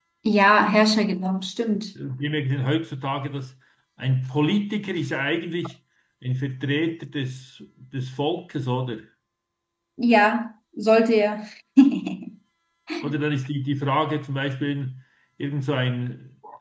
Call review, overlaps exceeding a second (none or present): none